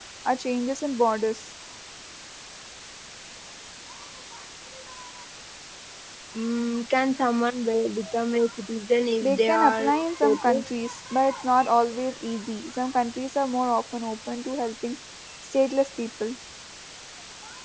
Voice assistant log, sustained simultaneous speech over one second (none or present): present